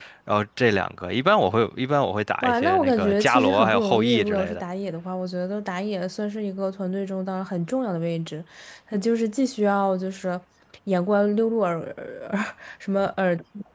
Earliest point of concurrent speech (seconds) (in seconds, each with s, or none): 2.4 s